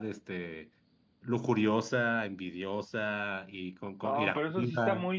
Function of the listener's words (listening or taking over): taking over